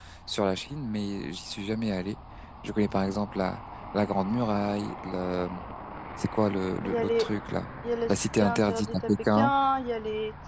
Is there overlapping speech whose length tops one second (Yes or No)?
Yes